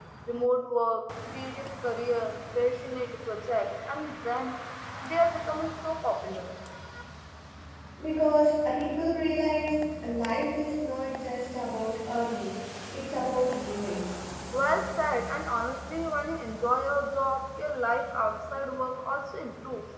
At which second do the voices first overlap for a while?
none

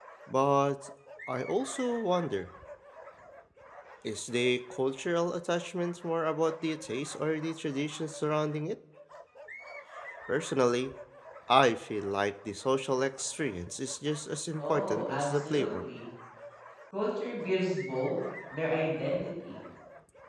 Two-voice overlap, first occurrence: 14.6 s

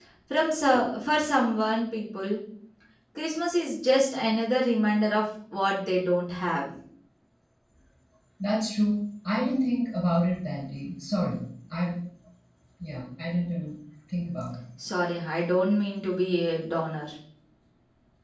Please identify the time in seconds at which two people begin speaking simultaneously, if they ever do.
none

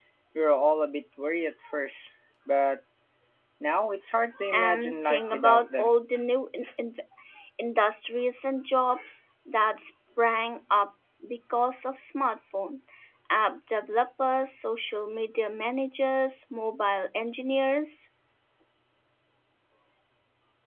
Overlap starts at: 4.5 s

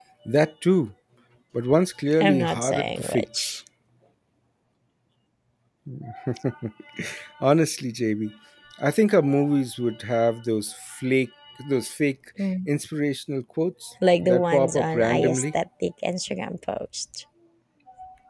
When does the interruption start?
2.2 s

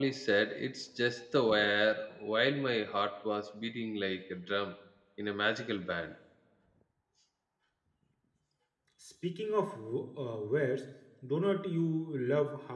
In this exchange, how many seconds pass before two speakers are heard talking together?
none

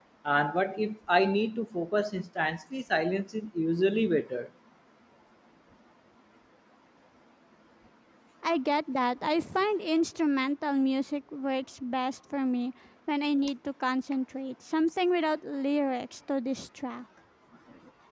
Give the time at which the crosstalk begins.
none

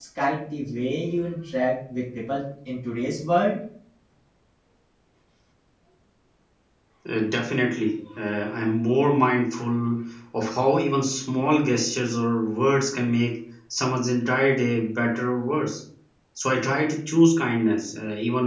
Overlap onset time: none

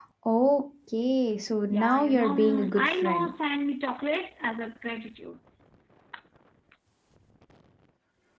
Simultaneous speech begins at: 1.7 s

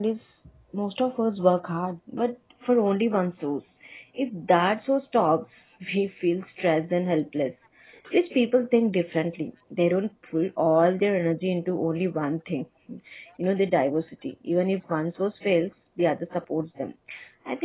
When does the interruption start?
none

